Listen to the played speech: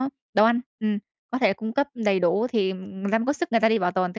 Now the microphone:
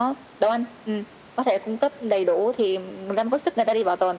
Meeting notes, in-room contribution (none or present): none